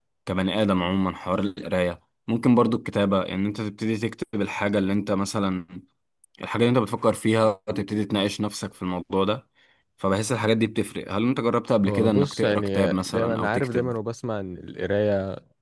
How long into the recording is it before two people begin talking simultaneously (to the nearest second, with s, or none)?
12 s